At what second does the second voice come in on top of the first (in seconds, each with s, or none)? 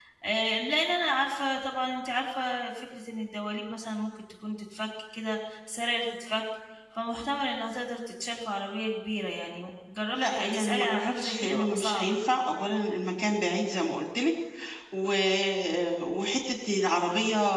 10.2 s